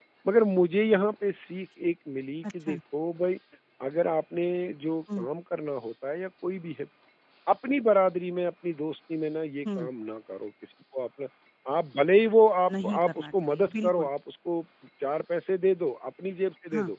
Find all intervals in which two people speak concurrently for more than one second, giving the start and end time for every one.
12.8-14.1

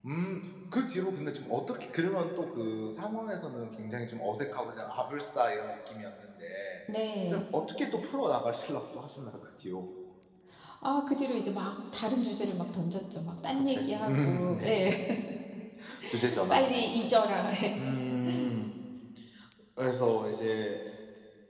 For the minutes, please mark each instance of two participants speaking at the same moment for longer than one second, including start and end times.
13.5-14.9

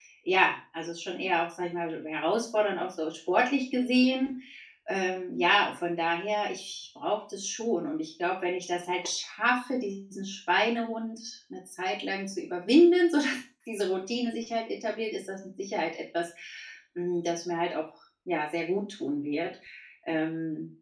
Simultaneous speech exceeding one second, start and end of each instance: none

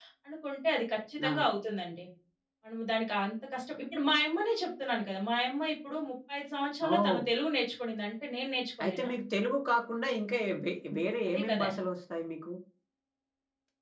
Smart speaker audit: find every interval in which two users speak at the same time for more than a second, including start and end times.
none

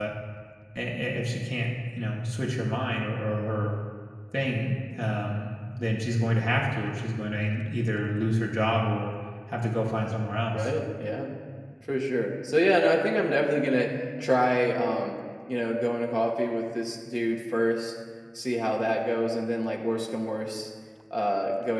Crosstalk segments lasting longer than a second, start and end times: none

